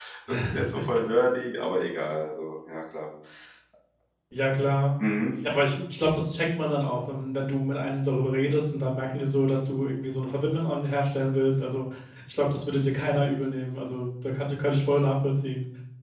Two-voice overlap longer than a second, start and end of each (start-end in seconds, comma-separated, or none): none